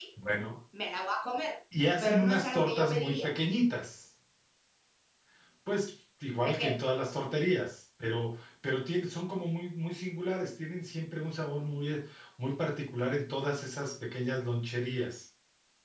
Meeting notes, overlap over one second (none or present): present